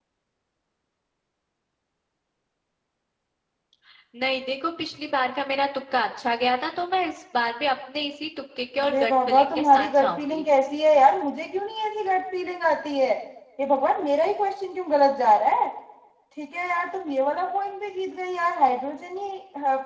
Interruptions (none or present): present